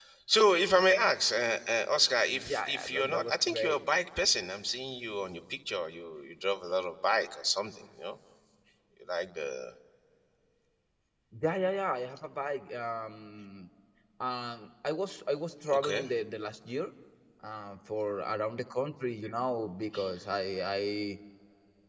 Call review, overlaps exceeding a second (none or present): present